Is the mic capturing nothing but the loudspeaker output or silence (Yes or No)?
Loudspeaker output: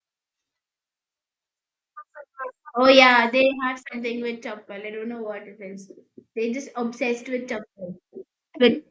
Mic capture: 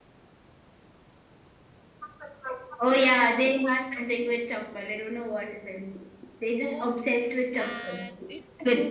No